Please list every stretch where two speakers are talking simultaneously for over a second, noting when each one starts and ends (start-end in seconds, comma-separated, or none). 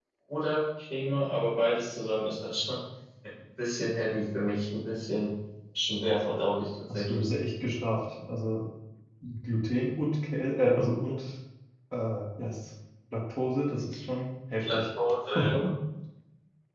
none